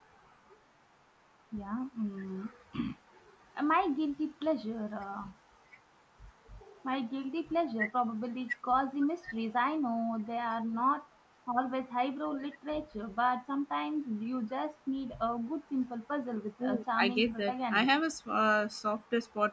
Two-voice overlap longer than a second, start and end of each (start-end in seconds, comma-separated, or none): 16.6-17.9